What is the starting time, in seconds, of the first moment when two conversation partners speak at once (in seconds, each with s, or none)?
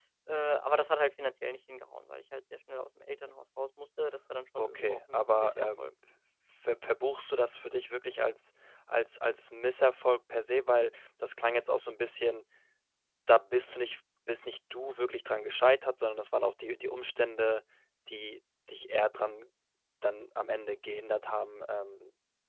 4.6 s